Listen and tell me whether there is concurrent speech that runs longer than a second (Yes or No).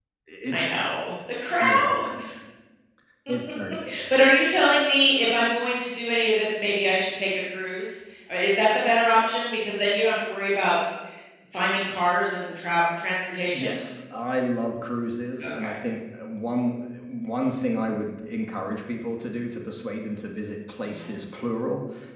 No